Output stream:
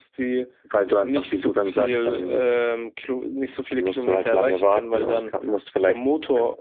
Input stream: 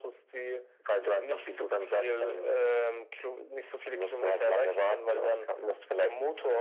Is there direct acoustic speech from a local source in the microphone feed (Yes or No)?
No